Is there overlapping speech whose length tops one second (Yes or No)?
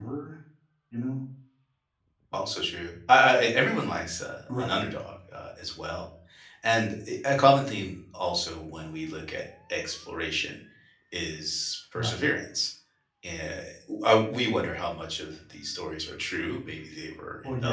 No